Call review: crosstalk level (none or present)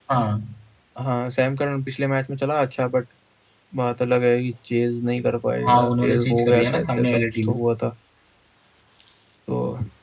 present